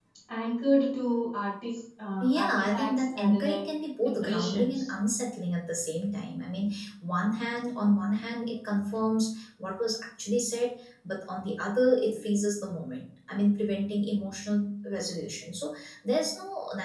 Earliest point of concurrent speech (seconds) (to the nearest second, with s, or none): 2 s